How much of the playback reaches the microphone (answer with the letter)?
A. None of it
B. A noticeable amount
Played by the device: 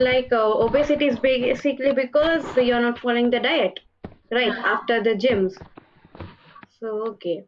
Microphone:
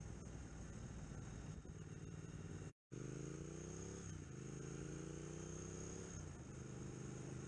A